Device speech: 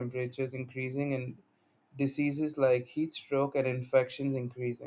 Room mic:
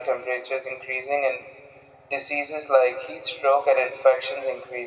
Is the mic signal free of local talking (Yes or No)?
Yes